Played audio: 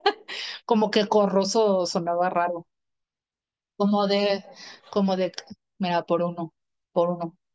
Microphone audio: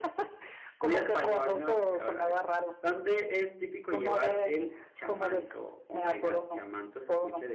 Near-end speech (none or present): present